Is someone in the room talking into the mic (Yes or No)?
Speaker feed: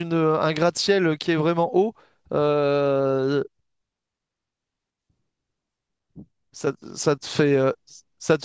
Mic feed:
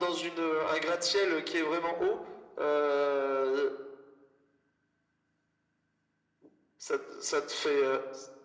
No